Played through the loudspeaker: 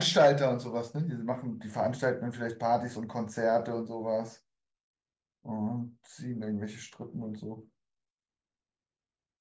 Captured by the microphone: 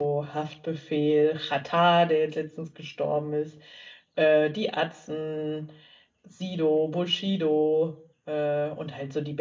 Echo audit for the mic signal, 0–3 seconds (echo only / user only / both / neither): user only